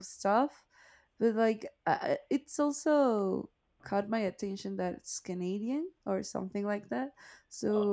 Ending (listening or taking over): listening